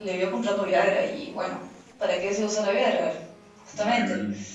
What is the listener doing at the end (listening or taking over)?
taking over